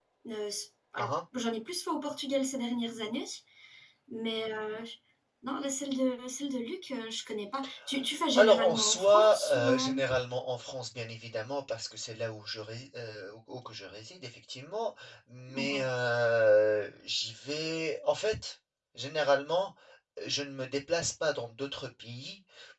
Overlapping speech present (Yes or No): Yes